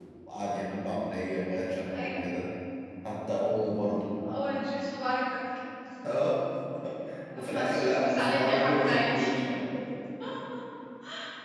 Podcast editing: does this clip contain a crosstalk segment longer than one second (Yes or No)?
Yes